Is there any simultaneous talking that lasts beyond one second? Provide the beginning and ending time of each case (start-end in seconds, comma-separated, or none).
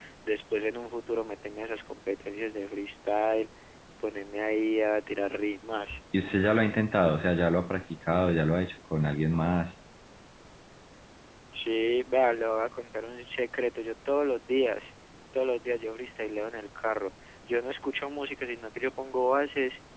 none